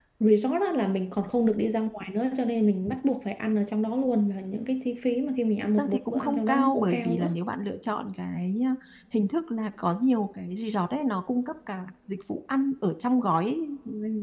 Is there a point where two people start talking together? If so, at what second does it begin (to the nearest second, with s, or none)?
6 s